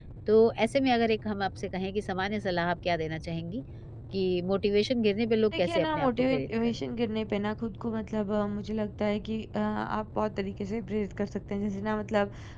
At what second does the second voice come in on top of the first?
6 s

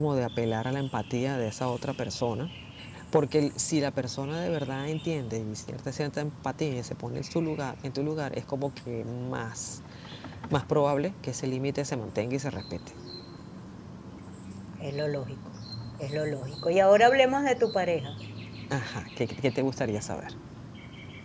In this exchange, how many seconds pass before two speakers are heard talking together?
none

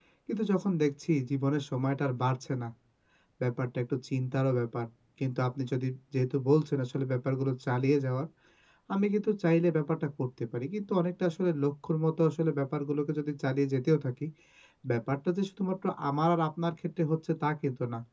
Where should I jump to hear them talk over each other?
none

